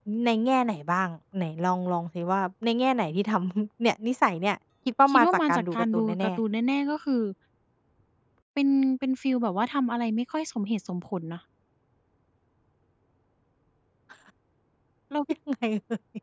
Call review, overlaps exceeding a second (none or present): present